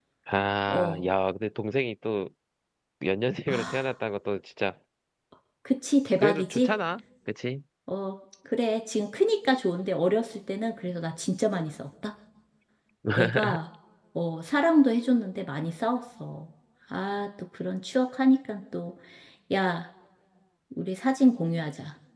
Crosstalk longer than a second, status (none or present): none